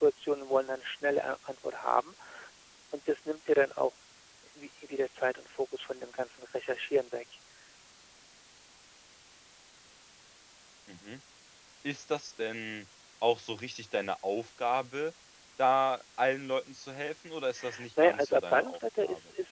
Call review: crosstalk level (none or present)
present